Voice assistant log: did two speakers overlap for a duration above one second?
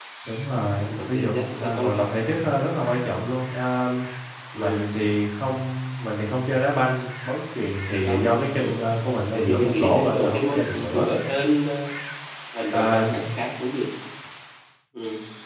Yes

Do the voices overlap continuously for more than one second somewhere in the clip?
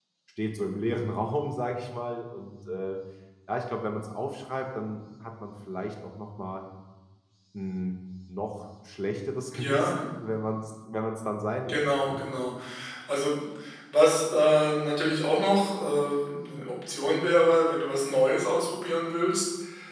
No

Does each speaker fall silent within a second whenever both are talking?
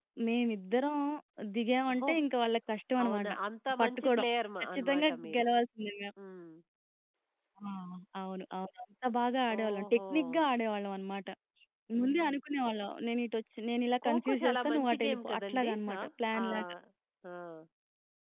No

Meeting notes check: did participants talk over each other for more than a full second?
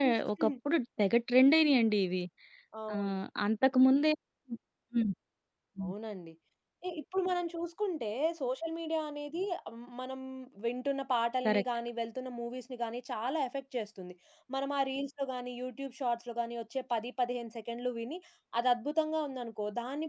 No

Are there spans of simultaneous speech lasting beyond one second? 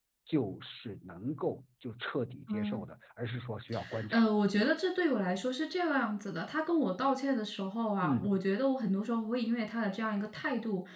No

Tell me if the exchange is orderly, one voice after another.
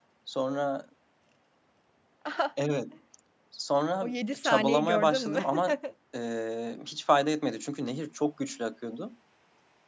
No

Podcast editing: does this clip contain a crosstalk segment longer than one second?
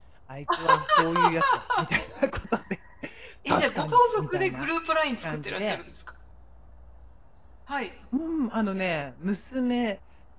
Yes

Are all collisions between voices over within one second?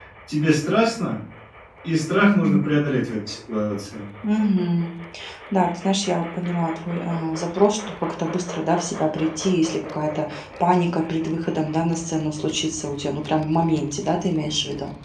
Yes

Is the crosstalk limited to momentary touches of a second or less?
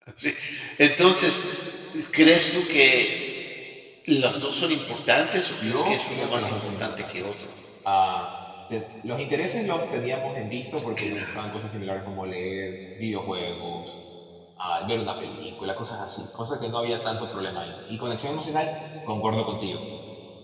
No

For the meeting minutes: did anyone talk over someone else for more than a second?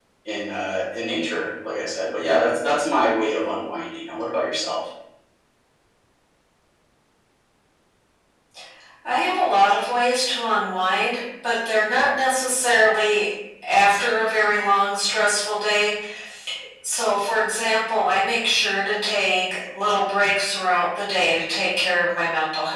No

